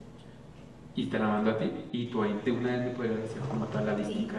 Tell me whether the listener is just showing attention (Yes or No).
No